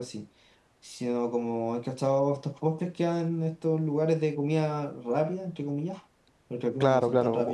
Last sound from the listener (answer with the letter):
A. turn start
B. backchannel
A